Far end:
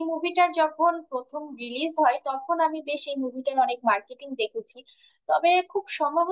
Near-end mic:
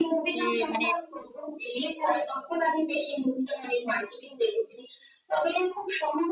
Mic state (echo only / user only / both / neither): both